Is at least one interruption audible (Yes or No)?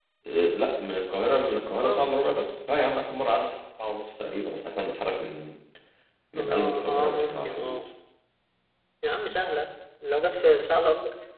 Yes